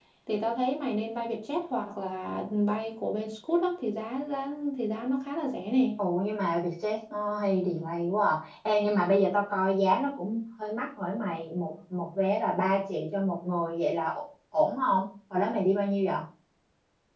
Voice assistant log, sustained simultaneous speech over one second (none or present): none